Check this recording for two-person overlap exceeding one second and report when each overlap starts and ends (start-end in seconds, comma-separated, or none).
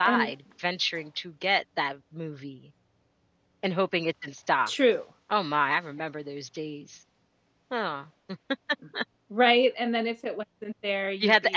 none